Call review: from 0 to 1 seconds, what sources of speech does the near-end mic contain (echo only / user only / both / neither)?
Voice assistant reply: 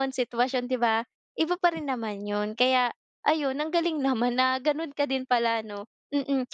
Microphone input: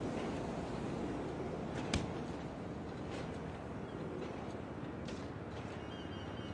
neither